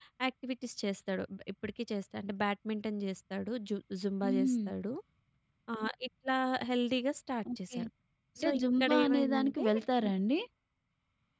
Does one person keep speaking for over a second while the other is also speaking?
Yes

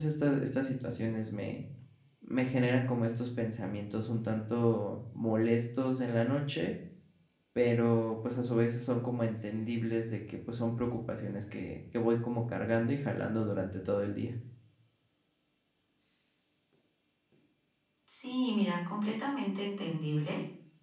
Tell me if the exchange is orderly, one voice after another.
Yes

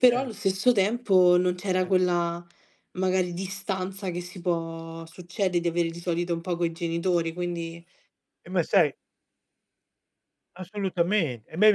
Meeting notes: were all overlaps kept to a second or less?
Yes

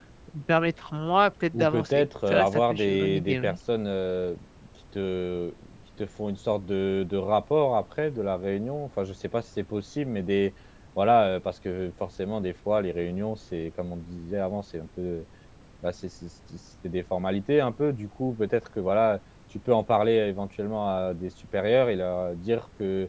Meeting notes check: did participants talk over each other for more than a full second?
Yes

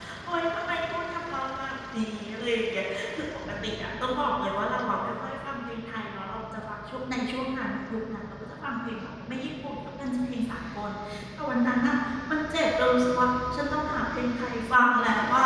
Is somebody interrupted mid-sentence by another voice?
No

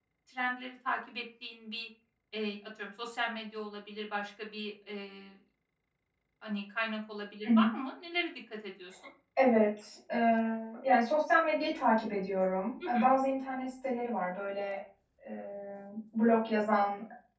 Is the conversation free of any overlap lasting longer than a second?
Yes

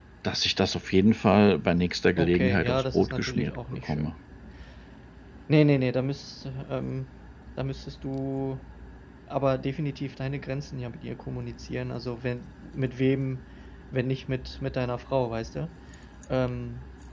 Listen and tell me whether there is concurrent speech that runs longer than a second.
Yes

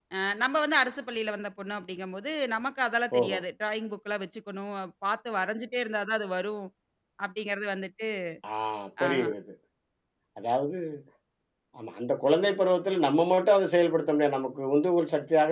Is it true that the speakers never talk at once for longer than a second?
Yes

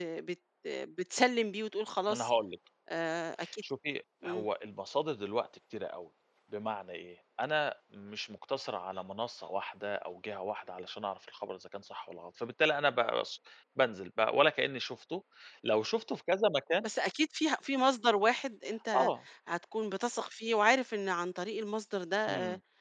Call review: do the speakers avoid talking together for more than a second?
Yes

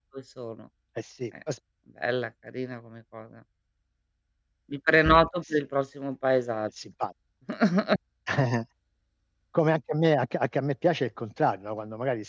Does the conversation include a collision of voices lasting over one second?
No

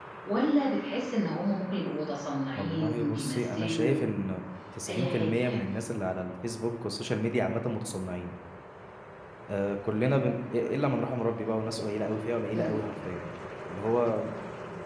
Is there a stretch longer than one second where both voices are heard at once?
Yes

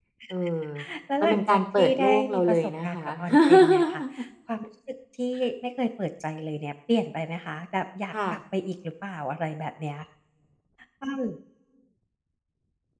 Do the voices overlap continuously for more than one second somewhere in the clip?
Yes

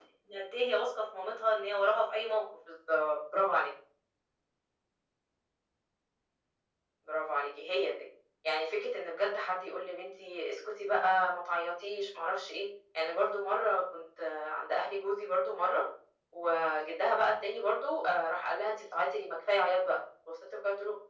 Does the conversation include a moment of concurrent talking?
No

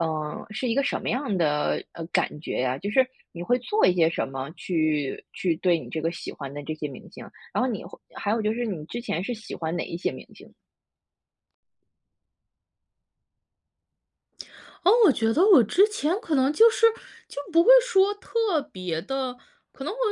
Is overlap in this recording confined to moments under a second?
Yes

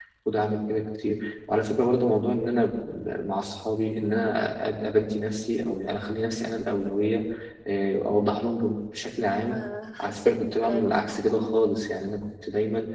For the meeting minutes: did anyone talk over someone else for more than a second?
Yes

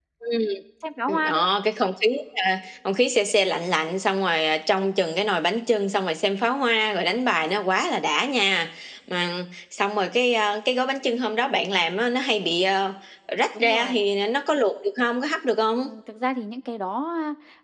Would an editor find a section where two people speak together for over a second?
No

